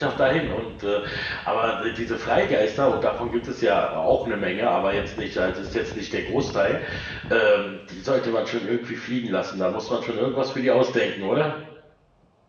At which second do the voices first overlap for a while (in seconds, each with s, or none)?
none